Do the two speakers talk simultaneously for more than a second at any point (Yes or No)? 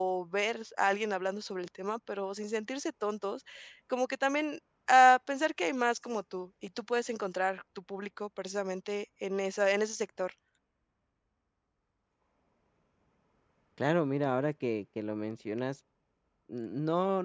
No